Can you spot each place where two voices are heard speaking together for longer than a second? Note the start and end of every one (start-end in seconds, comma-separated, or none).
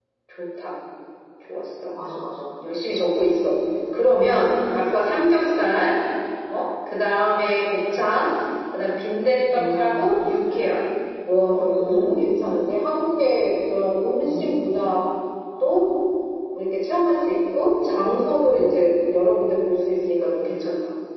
none